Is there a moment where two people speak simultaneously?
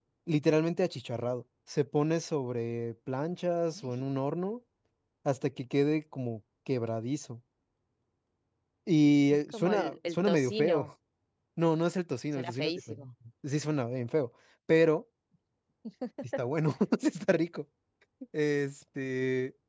Yes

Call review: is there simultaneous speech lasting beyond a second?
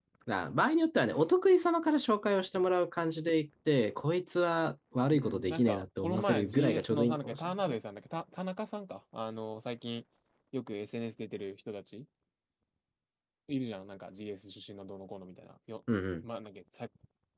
Yes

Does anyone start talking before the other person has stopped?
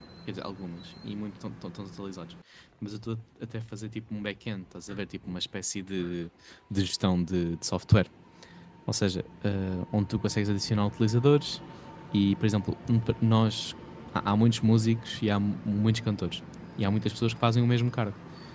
No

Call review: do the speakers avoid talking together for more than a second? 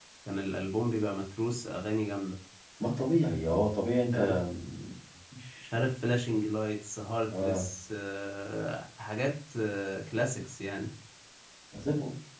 Yes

